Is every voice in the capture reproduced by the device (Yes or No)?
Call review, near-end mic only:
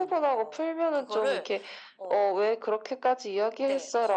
Yes